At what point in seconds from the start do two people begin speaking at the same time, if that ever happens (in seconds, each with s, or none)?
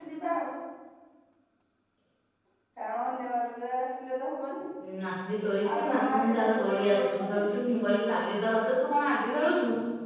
5.7 s